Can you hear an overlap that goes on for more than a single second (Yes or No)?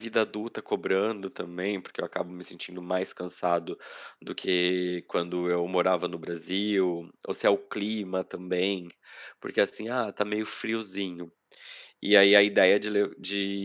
No